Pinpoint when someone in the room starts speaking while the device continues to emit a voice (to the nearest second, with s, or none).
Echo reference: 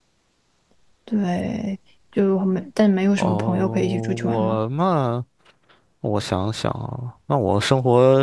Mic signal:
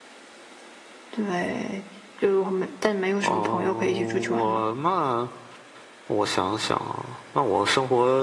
none